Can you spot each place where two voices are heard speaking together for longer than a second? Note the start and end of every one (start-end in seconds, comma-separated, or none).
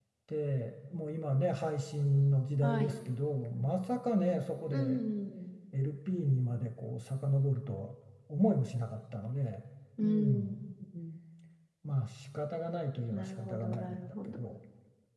13.1-14.4